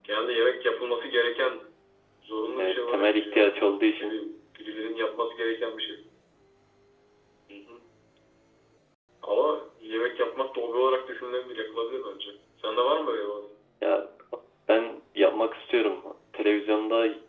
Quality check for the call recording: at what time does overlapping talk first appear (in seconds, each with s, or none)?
2.6 s